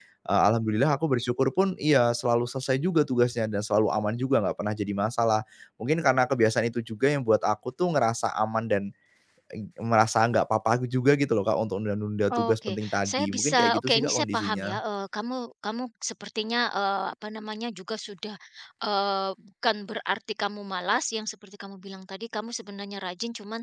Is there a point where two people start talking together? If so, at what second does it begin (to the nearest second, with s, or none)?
12 s